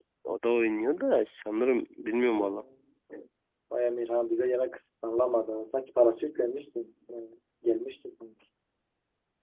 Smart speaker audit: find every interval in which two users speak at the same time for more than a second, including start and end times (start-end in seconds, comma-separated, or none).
none